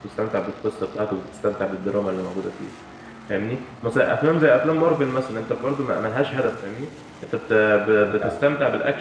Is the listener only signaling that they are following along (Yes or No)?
Yes